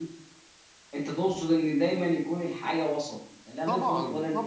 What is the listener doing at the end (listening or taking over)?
taking over